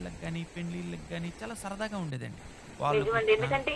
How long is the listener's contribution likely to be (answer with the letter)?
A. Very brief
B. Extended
B